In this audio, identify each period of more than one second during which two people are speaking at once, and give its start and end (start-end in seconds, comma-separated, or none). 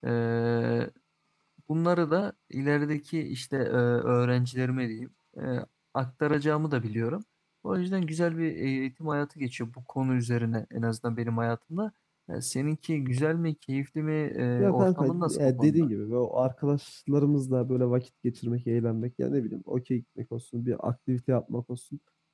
14.6-15.9